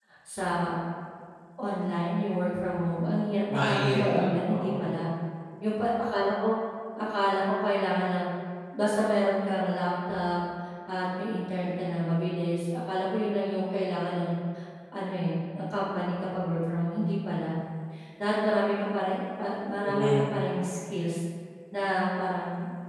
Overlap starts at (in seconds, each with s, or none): 3.5 s